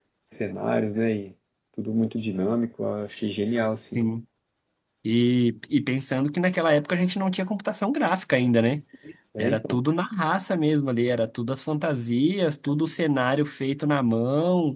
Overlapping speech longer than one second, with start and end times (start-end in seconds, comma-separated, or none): none